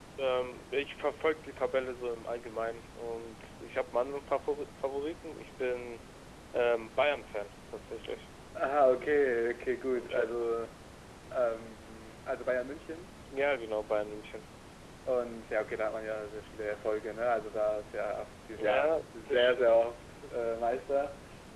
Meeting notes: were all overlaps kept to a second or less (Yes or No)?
No